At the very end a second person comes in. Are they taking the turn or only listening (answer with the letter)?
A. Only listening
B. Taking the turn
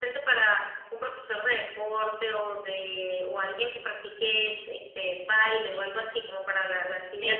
B